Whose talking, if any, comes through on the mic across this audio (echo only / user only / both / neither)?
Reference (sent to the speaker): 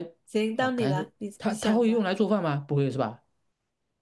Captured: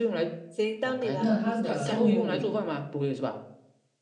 both